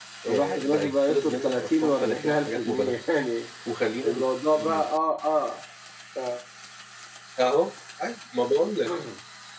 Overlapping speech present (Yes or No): Yes